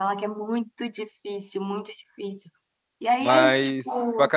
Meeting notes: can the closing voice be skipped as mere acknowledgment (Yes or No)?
No